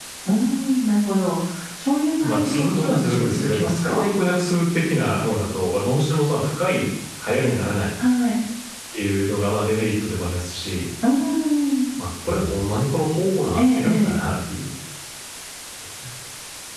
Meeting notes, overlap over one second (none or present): present